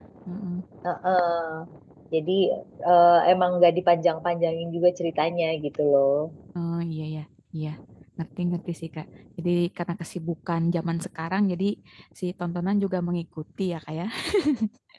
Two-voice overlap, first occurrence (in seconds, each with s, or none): none